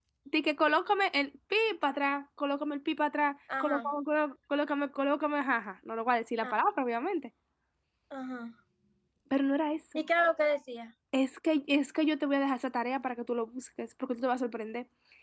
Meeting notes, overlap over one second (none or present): none